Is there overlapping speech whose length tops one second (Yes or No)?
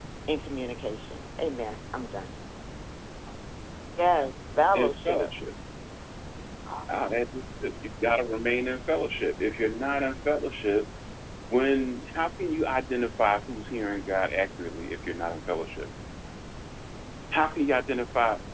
No